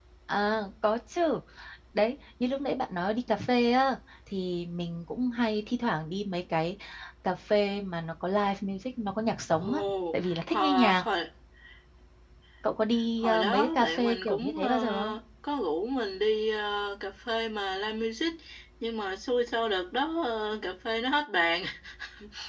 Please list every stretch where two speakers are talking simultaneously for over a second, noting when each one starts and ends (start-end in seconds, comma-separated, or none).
9.6-11.0, 13.2-15.2